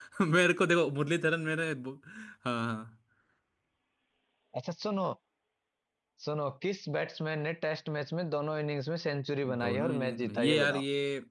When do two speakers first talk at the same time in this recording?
9 s

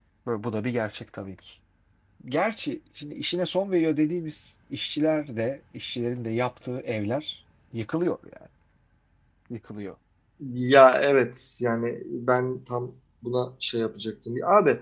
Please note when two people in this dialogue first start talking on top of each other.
none

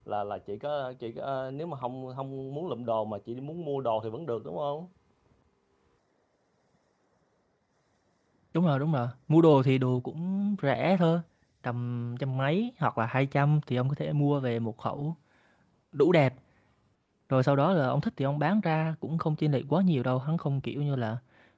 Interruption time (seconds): none

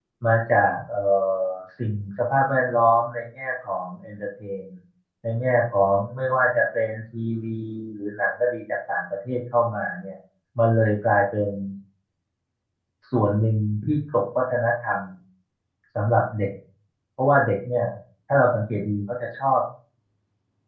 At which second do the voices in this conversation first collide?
none

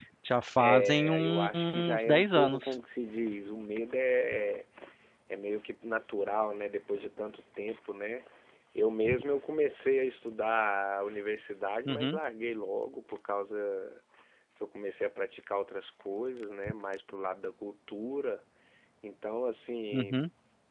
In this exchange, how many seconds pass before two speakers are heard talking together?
1 s

